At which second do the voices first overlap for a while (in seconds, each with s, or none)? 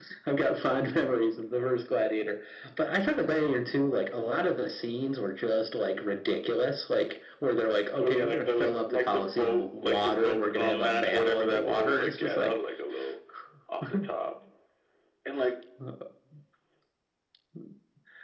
8.0 s